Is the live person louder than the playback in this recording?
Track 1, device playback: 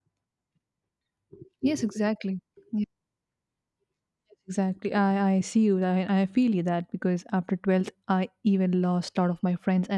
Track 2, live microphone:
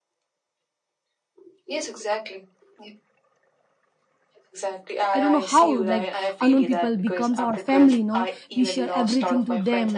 Yes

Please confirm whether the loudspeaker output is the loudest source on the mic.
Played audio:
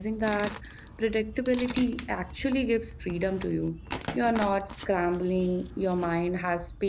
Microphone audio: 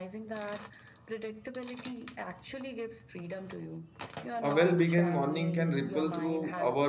No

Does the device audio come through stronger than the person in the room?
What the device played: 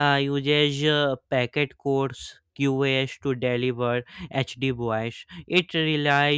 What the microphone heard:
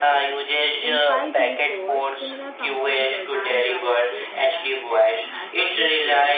Yes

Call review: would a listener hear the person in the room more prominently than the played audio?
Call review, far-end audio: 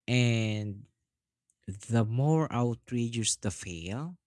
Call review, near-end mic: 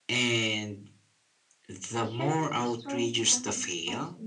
No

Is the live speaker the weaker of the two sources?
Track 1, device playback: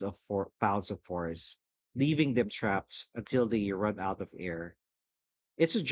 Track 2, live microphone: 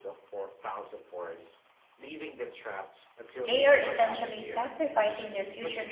No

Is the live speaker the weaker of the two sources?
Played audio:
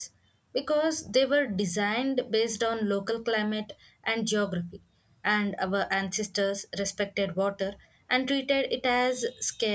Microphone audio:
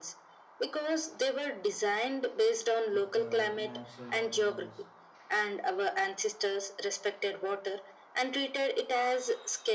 Yes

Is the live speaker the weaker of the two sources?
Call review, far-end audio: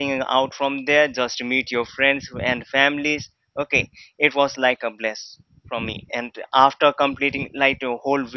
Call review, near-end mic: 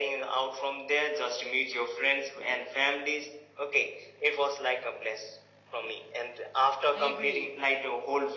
Yes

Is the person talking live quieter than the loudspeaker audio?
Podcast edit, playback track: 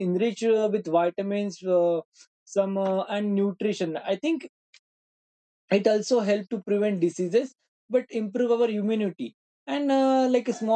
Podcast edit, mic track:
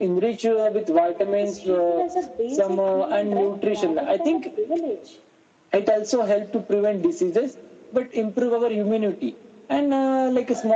Yes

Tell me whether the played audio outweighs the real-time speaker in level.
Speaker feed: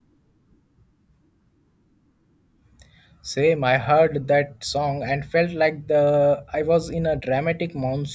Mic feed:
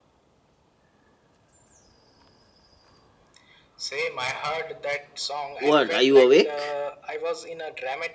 No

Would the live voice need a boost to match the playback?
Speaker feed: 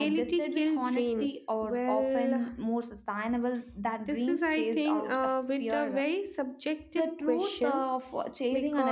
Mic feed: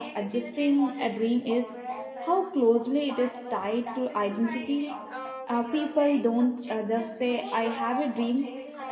No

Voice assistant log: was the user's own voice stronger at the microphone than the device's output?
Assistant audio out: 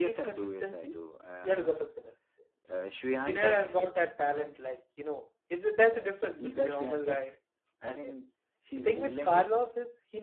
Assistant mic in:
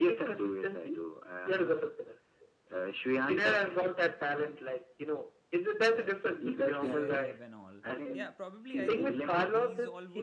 No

